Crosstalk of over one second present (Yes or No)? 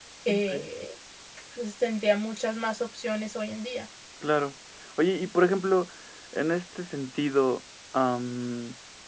No